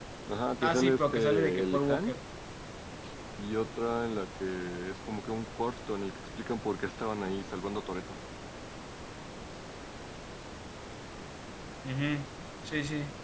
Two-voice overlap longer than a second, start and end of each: 0.6-2.1

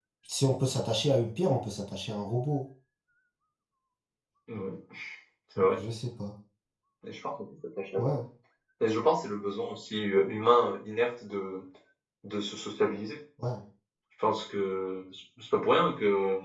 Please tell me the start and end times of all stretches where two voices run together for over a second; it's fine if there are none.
none

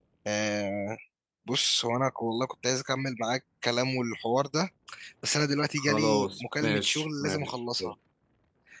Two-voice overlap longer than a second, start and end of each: 5.8-7.9

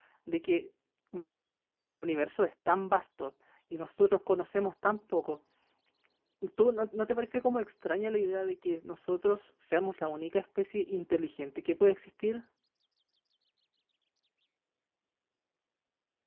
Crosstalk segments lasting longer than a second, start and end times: none

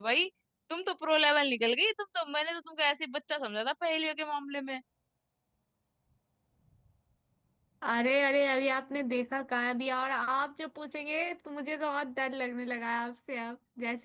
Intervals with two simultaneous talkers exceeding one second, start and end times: none

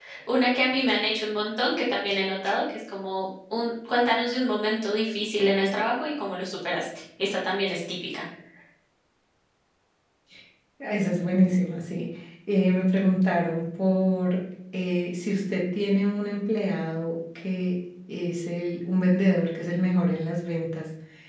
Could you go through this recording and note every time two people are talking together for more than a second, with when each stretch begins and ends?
none

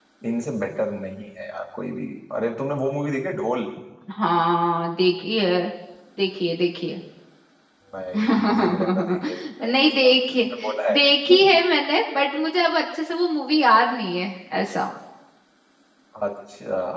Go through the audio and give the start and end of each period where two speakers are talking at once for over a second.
8.2-10.4

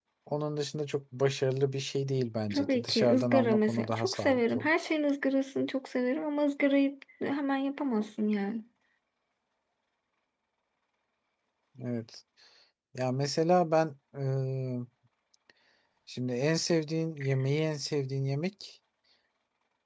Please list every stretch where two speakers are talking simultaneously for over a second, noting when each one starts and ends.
2.5-4.7

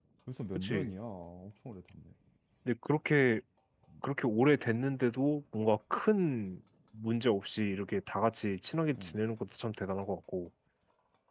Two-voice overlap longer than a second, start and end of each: none

